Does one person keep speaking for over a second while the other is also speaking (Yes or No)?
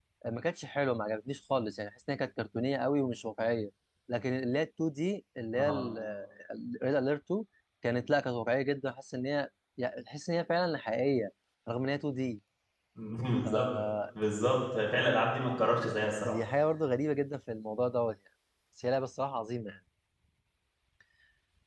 No